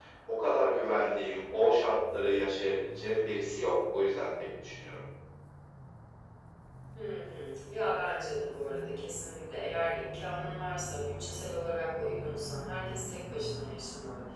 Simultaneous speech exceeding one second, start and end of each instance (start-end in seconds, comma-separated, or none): none